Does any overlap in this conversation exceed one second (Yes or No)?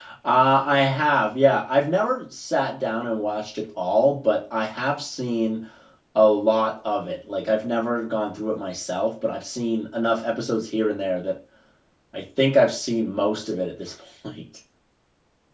No